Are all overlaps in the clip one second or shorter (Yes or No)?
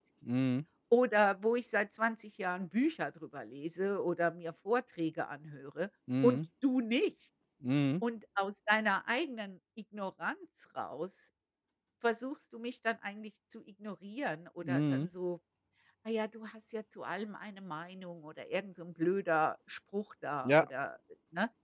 Yes